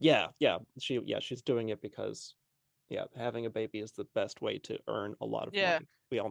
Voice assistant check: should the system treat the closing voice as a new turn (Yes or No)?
Yes